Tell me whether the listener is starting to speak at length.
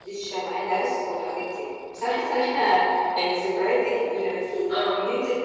No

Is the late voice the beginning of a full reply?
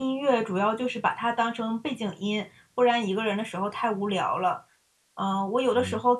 No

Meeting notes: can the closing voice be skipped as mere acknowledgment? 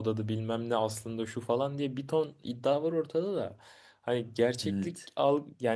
Yes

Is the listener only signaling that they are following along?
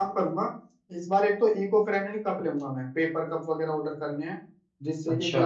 Yes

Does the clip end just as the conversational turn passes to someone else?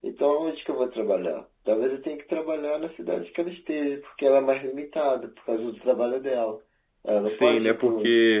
Yes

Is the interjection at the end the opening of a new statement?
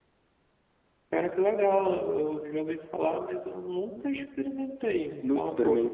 Yes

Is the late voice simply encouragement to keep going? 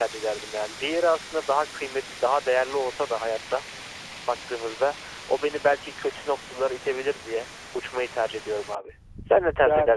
No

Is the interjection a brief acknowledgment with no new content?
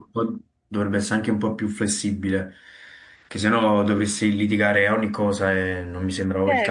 No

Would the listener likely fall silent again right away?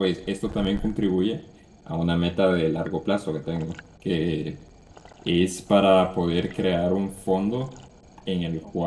Yes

